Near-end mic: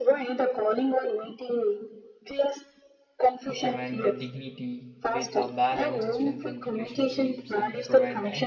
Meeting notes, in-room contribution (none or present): present